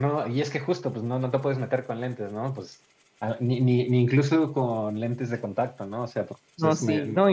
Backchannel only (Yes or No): No